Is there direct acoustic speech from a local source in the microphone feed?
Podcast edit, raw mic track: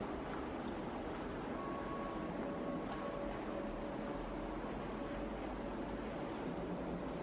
No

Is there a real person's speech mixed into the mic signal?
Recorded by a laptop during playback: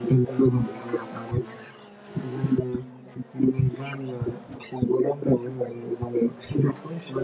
No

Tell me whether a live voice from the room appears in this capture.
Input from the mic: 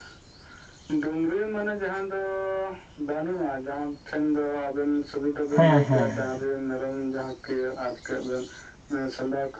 Yes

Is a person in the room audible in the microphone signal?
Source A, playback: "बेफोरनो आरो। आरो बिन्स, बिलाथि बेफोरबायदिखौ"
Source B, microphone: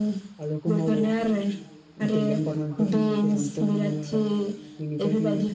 Yes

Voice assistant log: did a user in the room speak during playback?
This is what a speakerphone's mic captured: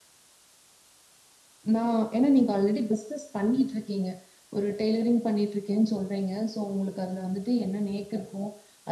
Yes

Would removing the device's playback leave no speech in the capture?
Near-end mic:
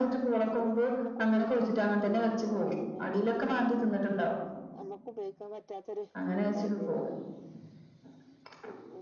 No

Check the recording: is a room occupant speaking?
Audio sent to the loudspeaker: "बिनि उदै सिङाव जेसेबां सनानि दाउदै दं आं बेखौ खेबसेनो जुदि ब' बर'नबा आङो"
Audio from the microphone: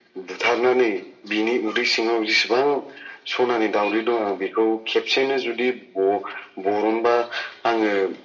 No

